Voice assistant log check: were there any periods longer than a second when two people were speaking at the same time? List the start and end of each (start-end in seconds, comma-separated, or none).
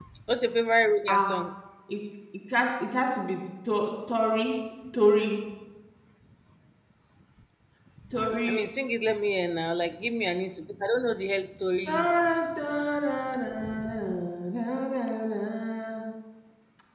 none